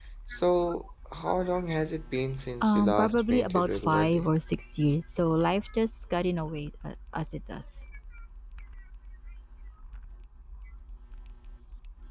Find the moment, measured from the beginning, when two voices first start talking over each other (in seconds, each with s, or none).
2.6 s